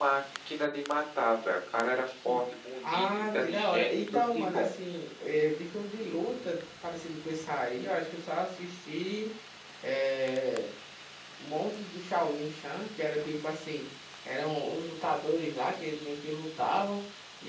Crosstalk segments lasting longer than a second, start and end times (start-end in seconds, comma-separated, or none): 2.9-4.7